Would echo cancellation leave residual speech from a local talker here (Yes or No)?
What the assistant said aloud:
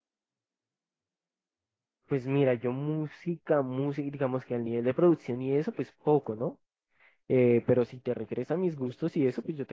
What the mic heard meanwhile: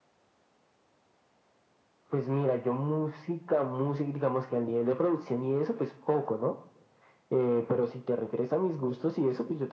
No